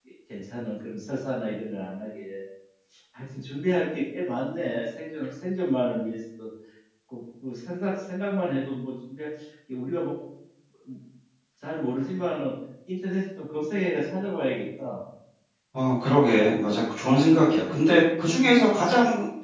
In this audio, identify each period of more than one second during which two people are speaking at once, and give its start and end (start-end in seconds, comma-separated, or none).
none